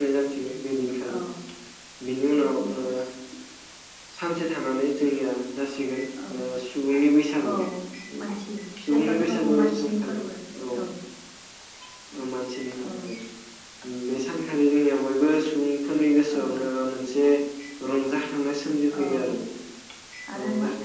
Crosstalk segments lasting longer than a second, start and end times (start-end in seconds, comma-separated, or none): 8.9-10.2